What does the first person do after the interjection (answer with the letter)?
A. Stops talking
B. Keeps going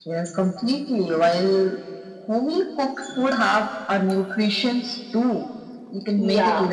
B